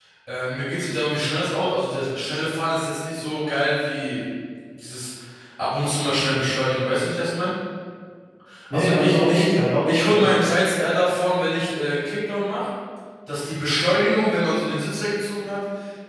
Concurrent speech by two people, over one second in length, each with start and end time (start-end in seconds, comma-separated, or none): 8.7-10.3